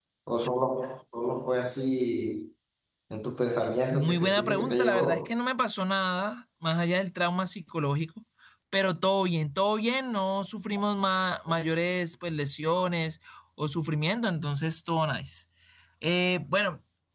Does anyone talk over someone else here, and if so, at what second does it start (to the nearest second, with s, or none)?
4 s